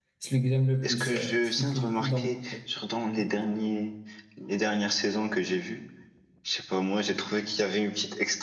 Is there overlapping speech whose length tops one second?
Yes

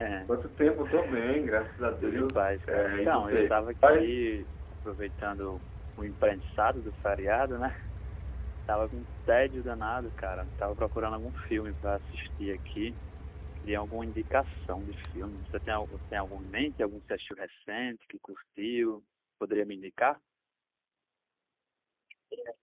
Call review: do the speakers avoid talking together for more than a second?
No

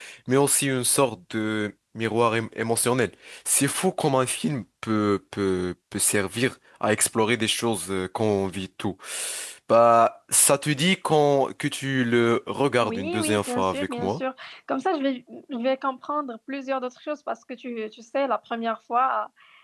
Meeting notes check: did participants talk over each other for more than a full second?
Yes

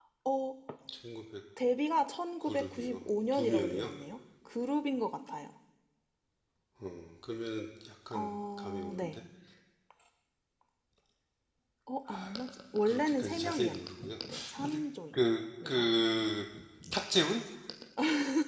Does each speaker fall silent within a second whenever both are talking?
No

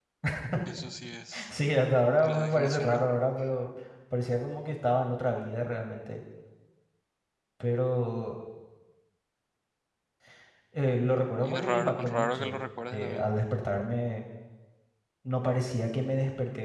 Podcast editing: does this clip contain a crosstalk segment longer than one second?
Yes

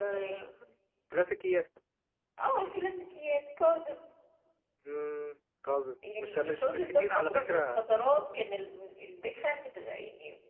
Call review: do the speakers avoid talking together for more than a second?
No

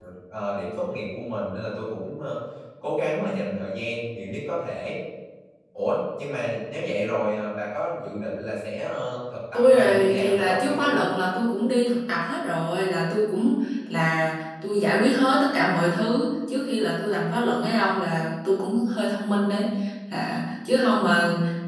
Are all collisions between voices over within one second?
No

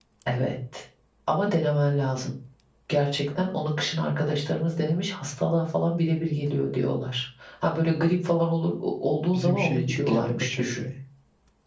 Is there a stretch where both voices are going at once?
Yes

